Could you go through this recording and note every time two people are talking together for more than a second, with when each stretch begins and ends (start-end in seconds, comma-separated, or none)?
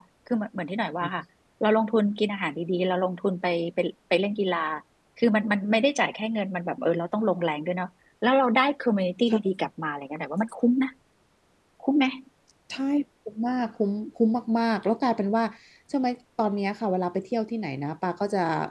none